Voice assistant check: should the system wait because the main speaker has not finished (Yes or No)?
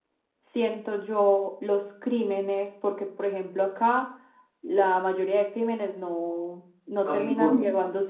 Yes